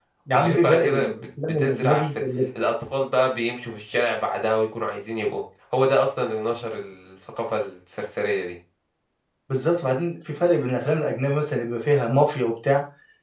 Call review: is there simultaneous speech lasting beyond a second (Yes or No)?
Yes